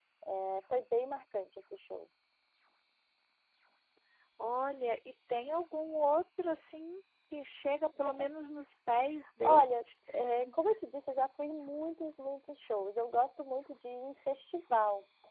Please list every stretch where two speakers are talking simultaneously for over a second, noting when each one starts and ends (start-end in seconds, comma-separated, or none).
none